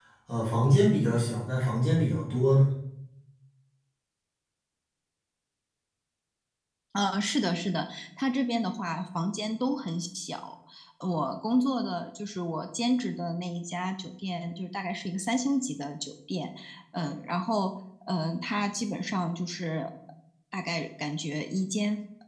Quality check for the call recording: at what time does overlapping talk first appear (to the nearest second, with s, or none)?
none